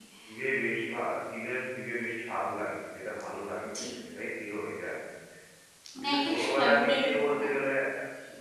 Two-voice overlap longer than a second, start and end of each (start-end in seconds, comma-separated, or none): 6.0-7.5